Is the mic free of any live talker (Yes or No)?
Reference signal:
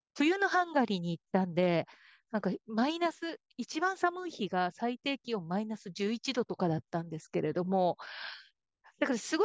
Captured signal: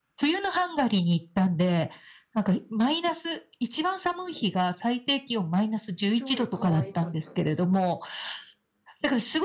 No